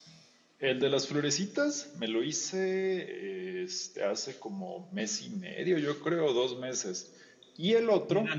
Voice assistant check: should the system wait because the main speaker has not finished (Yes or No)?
No